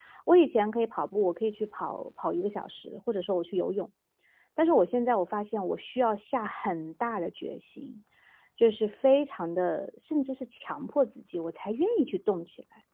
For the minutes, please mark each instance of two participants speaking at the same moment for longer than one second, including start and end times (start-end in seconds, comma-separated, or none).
none